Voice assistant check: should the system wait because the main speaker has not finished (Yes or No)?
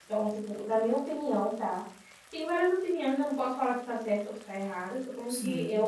Yes